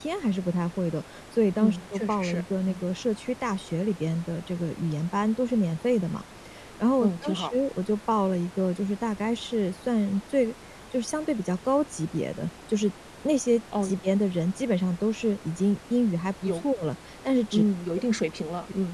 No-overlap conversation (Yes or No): No